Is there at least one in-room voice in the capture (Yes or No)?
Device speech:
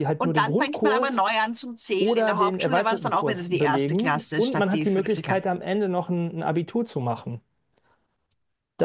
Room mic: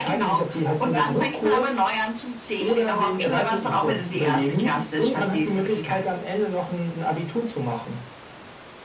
Yes